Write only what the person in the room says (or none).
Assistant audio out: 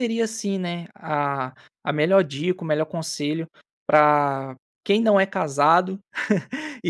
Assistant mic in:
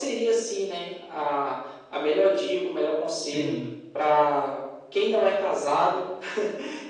Sim.